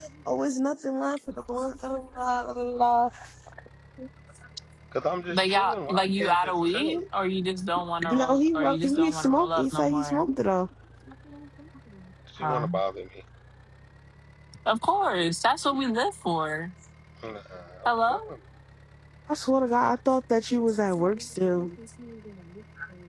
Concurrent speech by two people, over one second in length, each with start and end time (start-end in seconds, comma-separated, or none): 5.3-7.0, 8.1-10.3